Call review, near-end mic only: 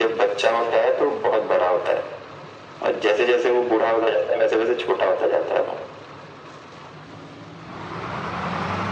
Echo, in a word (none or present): present